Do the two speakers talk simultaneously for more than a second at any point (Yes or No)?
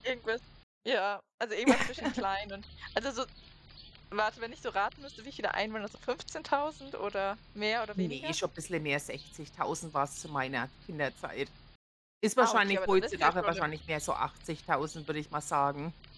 Yes